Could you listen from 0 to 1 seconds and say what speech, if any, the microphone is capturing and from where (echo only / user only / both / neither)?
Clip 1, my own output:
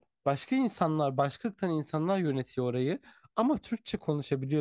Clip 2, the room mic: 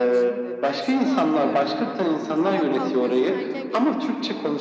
both